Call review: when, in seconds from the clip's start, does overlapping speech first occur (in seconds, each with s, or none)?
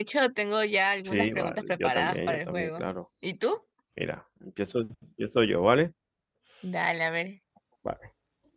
1.1 s